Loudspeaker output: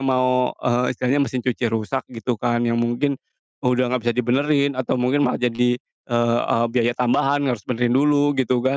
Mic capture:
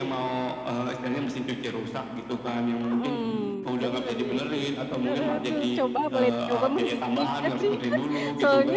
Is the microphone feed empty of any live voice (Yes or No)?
No